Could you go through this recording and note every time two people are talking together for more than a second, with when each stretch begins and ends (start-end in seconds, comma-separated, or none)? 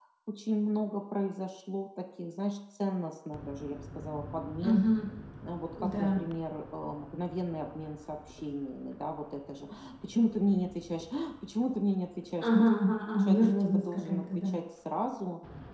13.2-14.5